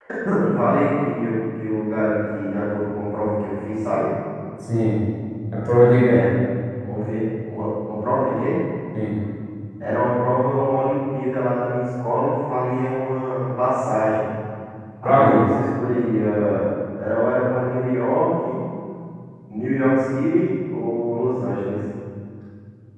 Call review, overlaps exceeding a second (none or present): none